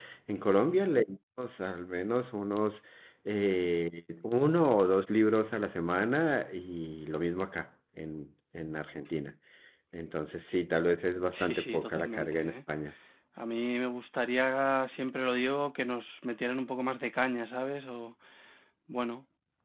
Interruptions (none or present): present